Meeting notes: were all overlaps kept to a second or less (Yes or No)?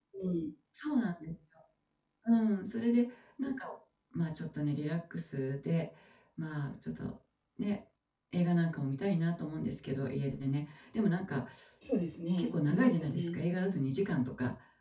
No